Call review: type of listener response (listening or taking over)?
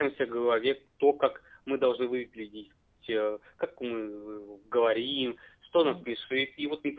listening